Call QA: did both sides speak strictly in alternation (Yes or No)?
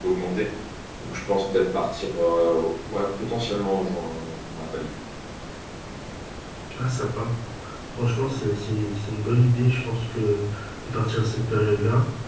Yes